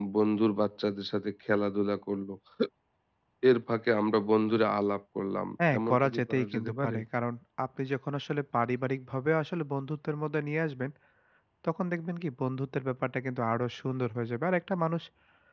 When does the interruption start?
6 s

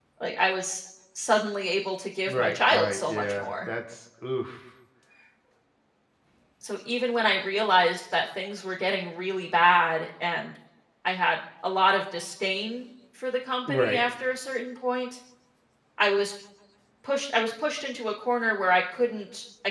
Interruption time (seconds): 2 s

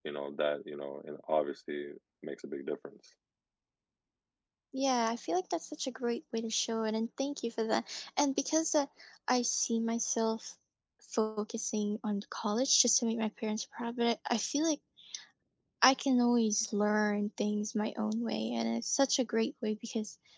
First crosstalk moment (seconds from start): none

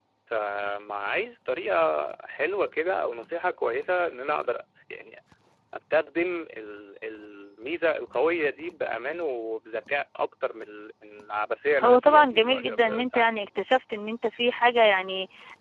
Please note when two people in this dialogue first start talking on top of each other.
12 s

